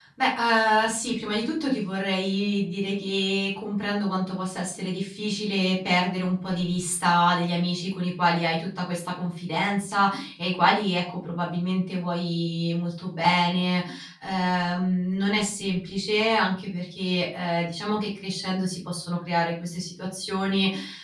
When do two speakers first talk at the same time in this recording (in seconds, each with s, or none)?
none